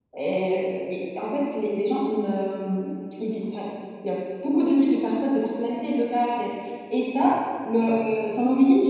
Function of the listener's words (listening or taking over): listening